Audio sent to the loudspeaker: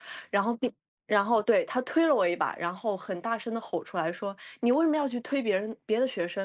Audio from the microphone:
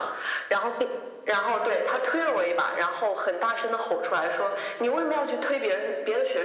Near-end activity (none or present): none